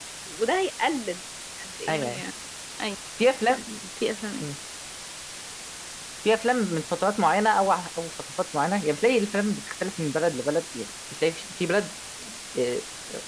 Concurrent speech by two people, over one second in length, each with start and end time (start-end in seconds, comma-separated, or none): none